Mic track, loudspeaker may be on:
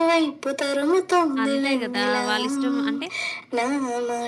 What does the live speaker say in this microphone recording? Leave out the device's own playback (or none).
అంతే గదా! వాళ్ళిష్టం అంటే,